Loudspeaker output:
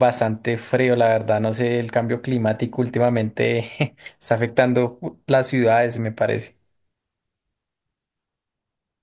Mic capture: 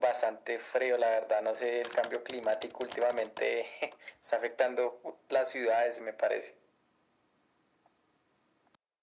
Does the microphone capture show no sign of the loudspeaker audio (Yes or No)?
No